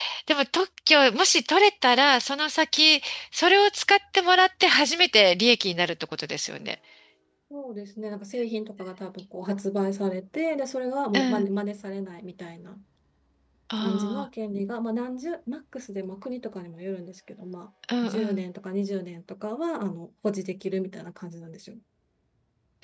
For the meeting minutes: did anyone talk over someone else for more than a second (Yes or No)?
No